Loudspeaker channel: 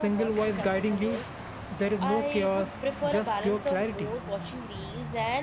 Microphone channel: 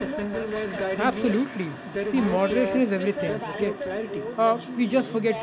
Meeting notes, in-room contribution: present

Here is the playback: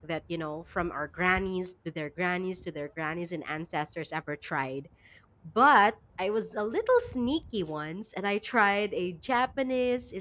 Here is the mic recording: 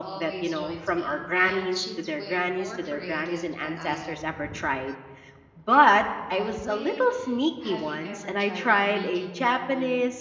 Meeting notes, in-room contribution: present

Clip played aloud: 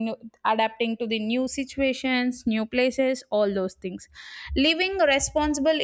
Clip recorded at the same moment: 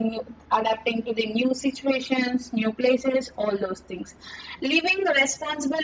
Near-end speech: none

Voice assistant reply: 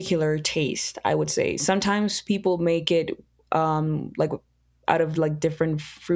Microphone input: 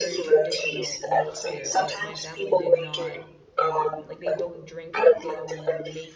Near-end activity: present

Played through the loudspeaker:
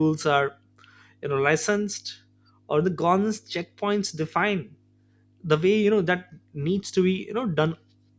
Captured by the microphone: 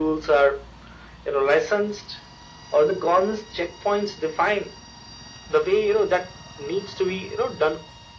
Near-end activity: none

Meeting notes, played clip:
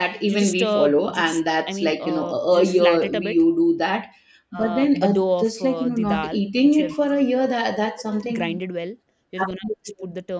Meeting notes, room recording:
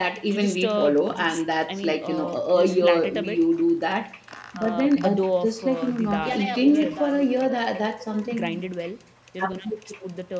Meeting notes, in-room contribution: present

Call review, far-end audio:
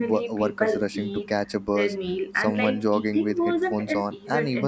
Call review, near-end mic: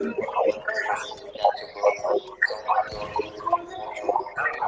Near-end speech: none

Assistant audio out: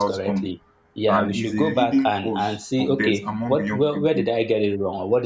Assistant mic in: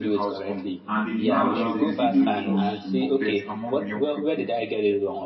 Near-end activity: present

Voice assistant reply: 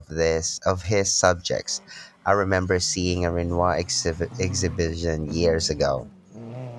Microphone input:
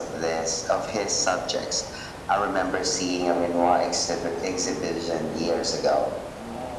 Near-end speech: none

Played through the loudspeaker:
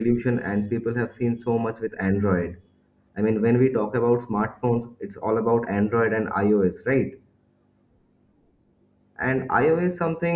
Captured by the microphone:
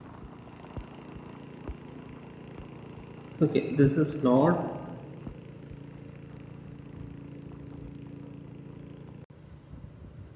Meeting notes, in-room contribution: present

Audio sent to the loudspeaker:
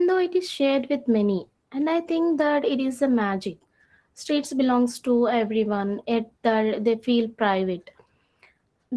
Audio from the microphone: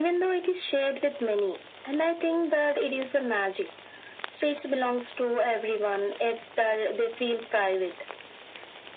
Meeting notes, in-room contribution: none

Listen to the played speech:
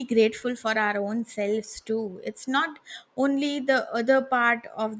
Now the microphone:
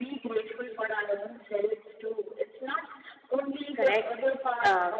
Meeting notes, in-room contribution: present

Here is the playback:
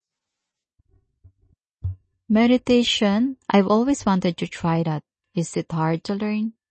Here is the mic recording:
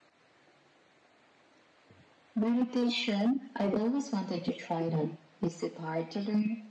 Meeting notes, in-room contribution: none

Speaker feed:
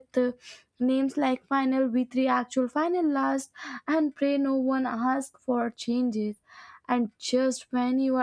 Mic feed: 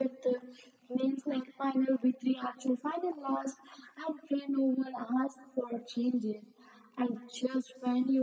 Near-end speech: none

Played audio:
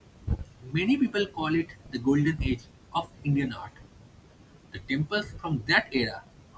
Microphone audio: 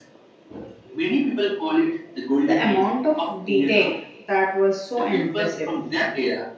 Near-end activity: present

